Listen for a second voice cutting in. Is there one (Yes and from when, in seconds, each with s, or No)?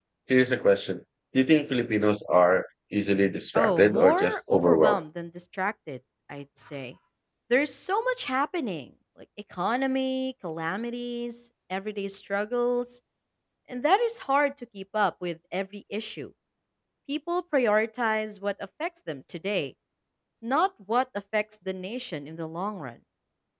Yes, from 3.6 s